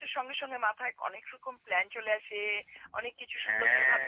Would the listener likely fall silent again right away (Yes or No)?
Yes